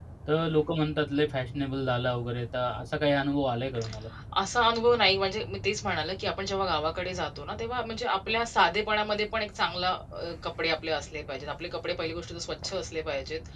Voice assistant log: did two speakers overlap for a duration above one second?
No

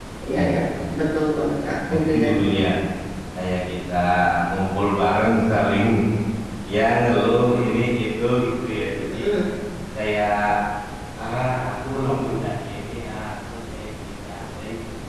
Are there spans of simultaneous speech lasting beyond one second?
No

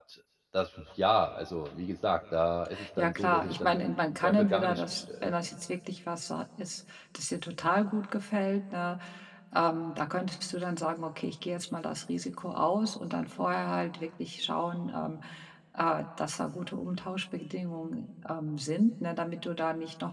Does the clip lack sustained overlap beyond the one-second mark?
No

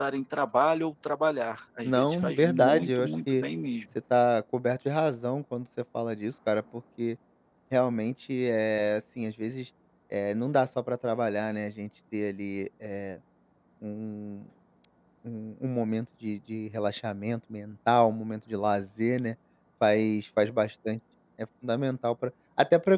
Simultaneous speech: Yes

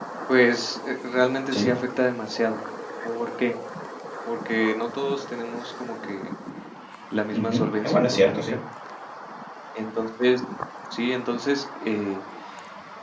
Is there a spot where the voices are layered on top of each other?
Yes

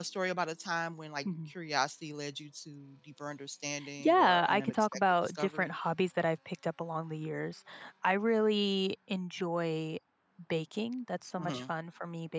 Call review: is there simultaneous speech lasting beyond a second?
Yes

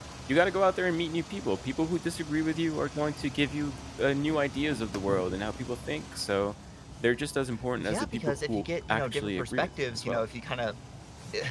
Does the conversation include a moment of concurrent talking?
Yes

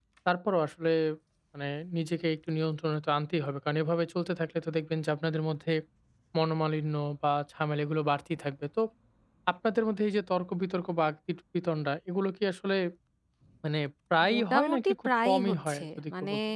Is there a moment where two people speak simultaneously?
Yes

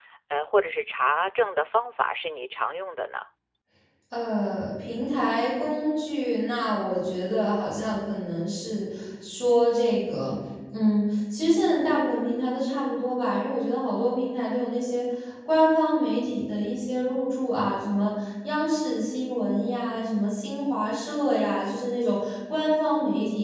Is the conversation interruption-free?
Yes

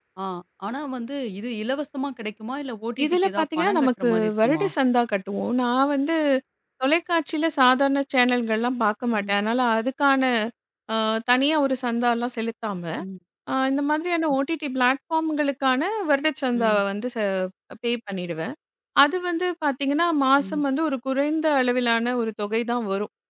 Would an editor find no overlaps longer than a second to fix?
No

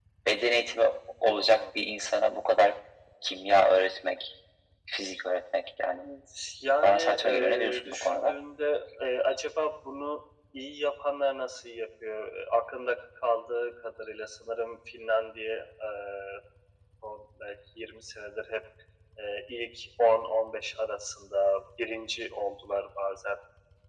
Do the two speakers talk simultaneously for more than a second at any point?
Yes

